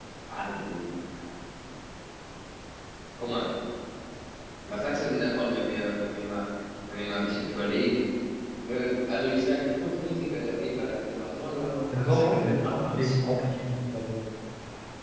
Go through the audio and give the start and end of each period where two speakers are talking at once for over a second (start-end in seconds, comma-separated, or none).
12.0-13.3